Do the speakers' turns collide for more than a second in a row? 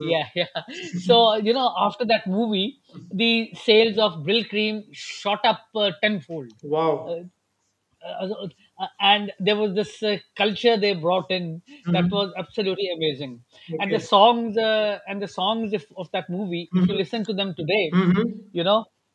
No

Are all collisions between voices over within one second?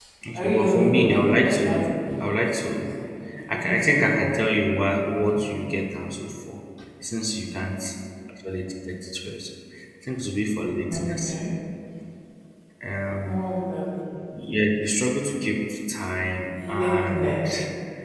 No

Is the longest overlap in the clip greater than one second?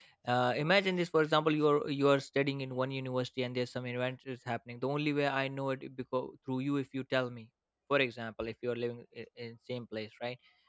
No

